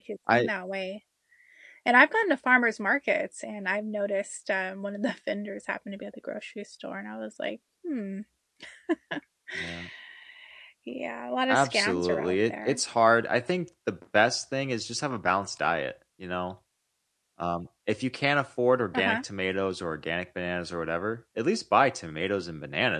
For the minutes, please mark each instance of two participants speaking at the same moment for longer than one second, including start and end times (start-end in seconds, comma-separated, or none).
11.5-12.8